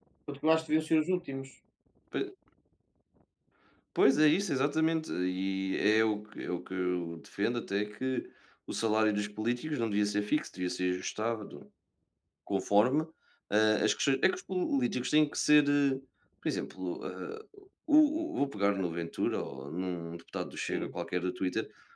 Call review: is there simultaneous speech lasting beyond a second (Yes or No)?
No